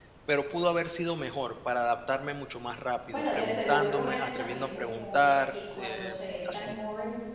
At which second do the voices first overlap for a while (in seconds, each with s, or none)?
3.1 s